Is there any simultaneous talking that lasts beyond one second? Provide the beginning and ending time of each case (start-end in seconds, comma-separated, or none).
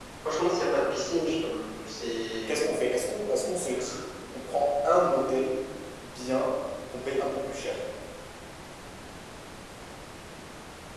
none